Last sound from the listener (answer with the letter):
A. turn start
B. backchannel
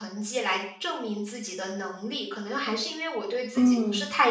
B